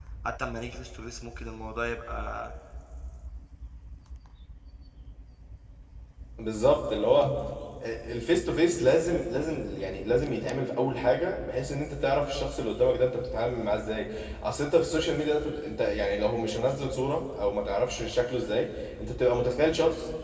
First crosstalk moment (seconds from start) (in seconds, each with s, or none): none